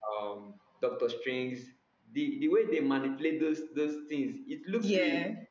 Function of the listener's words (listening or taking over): listening